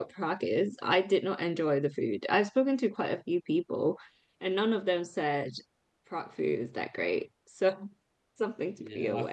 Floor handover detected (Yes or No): Yes